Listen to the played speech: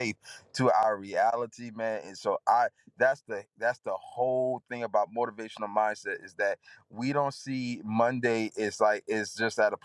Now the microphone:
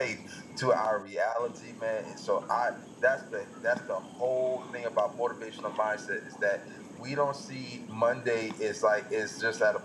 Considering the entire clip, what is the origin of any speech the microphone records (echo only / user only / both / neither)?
echo only